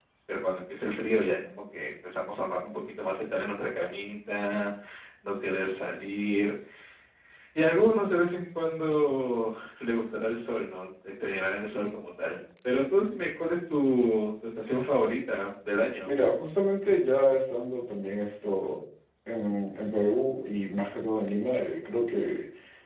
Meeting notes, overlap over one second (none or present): none